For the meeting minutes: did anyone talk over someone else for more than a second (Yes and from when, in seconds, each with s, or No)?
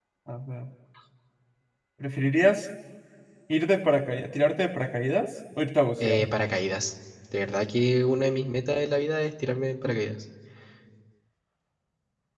No